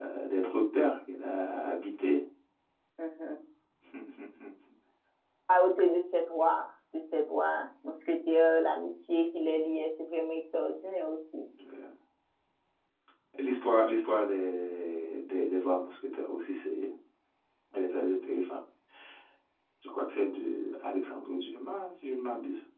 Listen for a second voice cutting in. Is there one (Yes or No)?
No